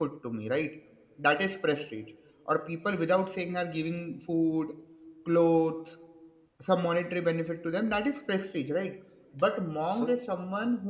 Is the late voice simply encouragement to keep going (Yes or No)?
Yes